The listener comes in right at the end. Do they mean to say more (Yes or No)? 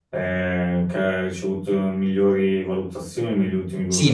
Yes